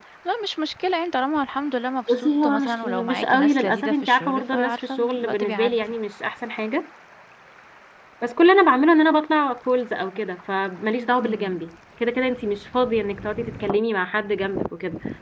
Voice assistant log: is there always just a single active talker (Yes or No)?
No